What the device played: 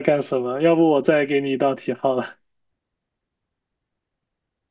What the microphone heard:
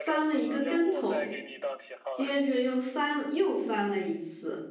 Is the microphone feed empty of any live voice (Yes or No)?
No